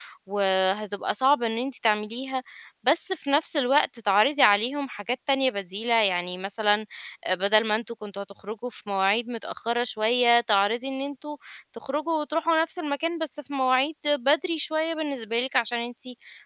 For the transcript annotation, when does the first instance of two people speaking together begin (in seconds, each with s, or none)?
none